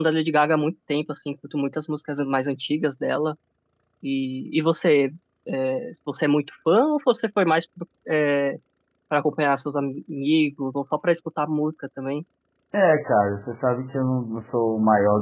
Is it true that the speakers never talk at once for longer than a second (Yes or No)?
Yes